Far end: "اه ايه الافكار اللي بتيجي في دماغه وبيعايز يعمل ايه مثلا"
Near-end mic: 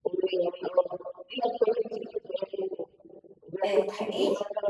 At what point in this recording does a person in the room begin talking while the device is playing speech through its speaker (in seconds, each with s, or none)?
3.6 s